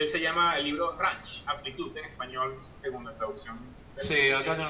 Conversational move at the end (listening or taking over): taking over